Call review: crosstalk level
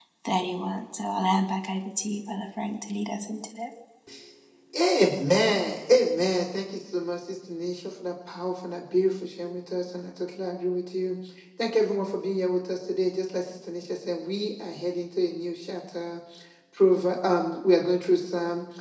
none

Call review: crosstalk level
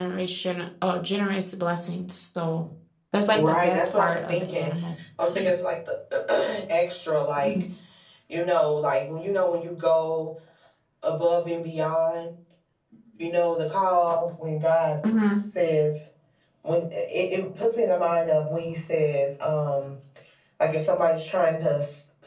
present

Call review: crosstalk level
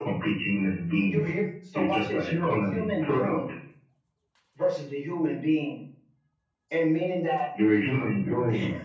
present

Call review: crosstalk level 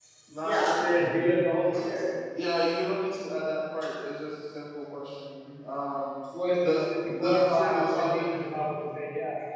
present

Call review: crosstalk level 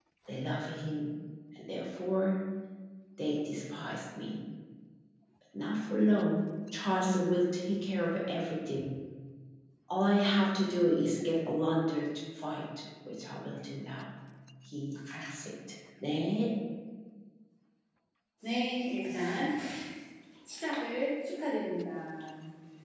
none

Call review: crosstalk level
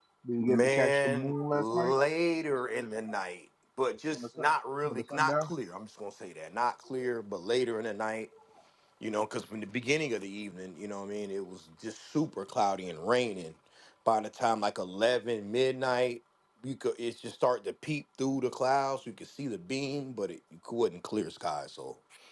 present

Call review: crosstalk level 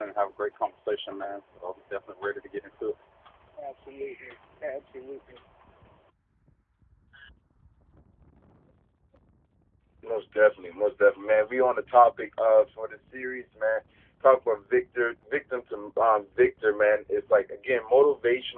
none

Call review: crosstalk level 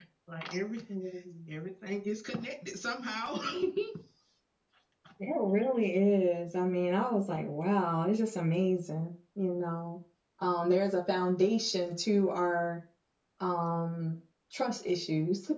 none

